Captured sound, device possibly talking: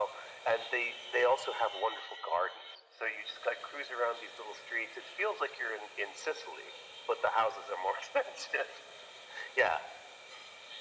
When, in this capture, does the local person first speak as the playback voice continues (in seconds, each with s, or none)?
none